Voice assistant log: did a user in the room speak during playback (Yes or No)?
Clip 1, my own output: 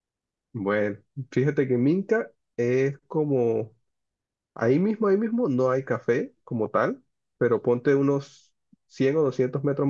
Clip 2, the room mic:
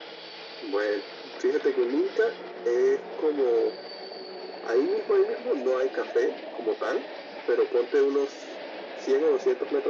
No